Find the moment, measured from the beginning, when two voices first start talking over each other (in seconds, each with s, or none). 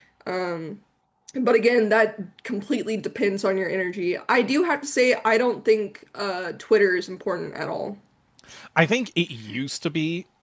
none